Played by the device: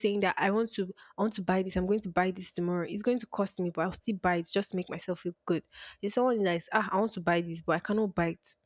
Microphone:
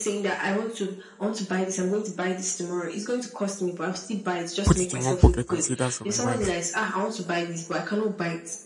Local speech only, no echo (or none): put it in one pocket, and say that's for my wife,